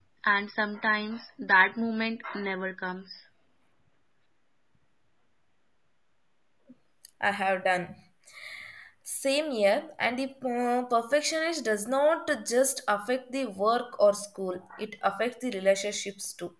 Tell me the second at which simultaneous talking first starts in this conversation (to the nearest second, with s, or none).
none